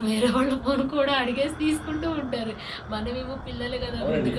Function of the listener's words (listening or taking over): listening